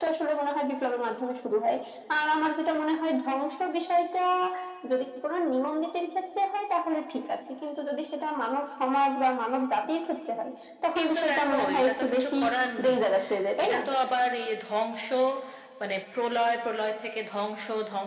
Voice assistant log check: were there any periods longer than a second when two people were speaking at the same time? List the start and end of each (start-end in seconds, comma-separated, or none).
11.0-12.3